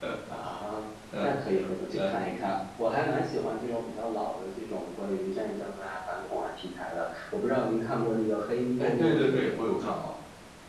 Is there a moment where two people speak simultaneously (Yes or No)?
Yes